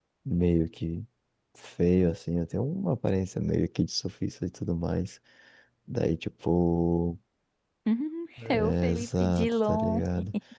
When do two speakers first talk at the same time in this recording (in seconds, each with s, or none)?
8.4 s